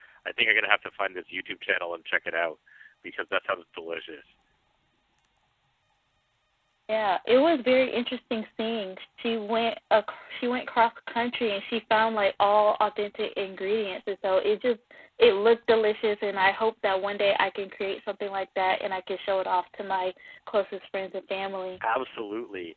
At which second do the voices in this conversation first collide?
none

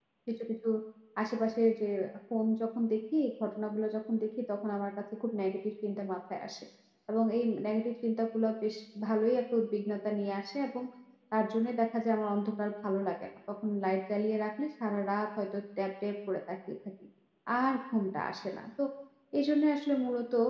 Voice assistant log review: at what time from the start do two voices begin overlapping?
none

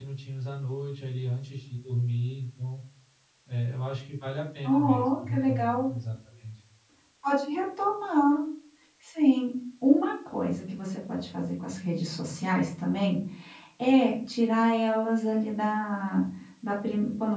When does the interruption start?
5 s

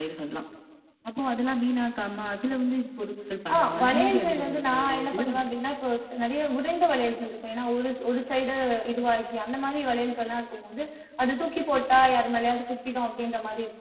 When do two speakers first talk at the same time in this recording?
3 s

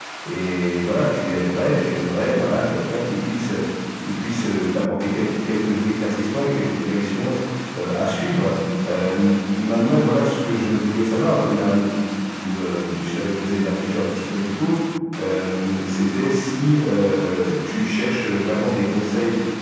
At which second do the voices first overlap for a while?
none

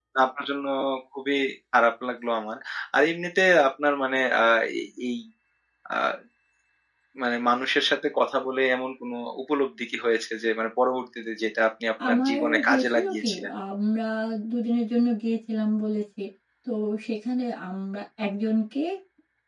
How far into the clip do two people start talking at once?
12 s

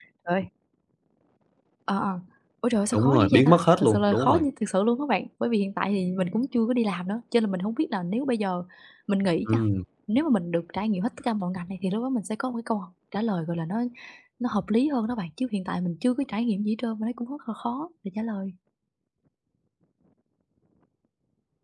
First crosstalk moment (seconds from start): 3 s

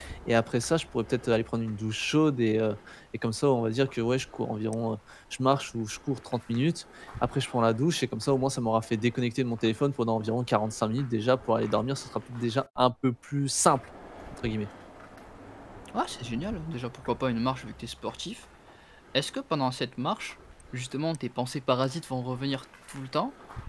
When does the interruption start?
none

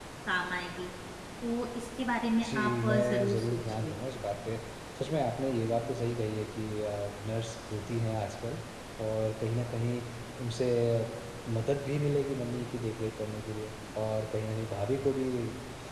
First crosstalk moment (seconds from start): 2 s

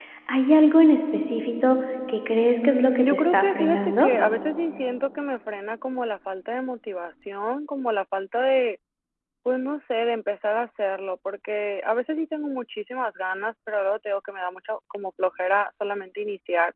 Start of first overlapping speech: 3 s

